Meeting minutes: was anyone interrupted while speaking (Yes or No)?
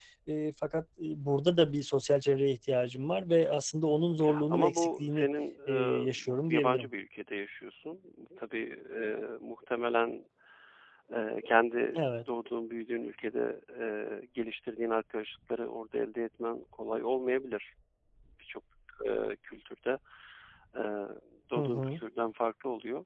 Yes